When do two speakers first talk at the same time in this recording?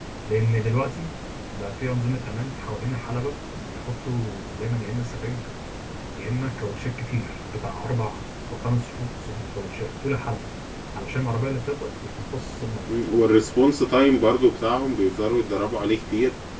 none

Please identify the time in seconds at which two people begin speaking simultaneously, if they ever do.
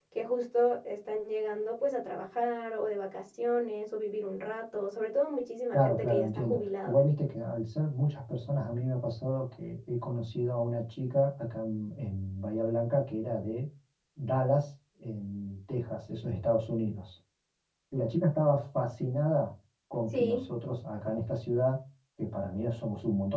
5.7 s

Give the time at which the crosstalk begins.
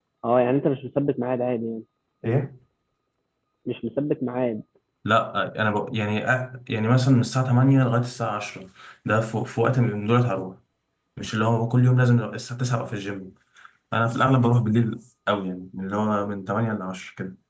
none

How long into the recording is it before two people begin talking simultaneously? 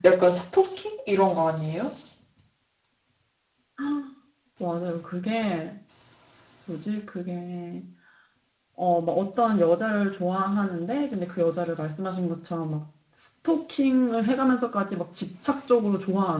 none

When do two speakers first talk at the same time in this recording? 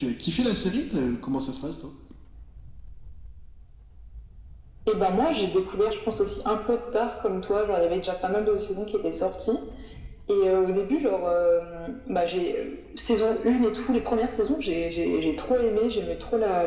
none

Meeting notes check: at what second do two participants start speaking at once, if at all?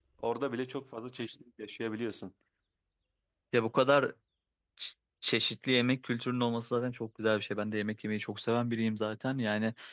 none

